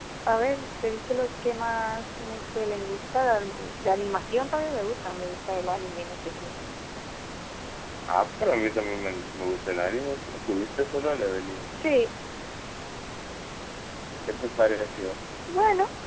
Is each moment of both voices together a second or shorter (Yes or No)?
Yes